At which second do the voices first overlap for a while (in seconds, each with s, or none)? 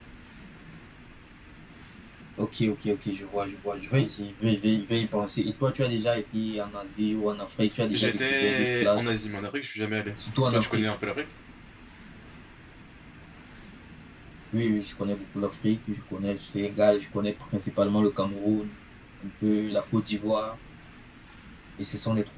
7.9 s